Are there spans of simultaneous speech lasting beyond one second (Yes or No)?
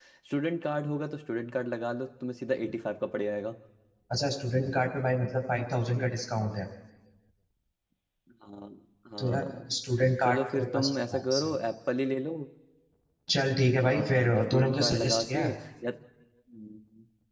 Yes